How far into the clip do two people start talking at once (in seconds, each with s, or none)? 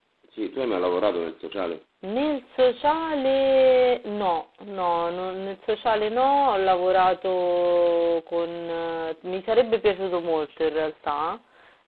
none